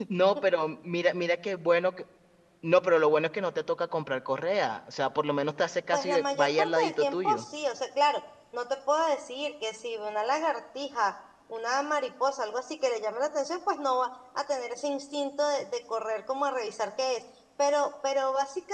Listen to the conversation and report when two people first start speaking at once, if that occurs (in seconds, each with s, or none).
5.9 s